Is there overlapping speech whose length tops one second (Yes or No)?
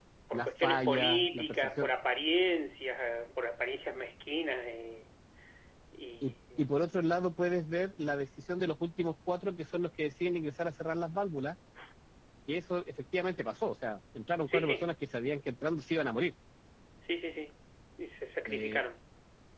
Yes